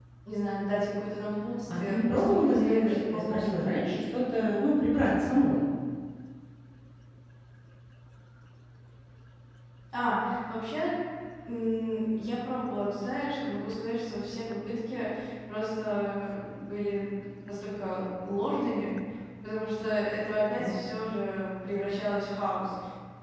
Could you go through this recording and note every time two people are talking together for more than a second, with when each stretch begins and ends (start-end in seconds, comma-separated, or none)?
1.7-3.8